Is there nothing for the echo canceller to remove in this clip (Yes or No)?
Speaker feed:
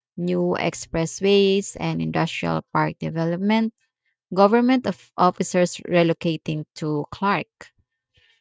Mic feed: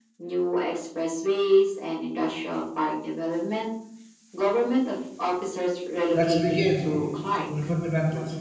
No